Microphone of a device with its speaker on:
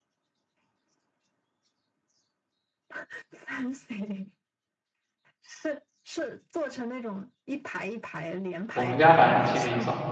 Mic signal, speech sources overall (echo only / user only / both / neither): both